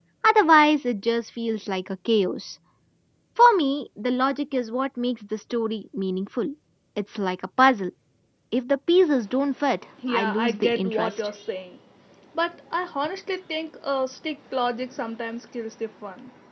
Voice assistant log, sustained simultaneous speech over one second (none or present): present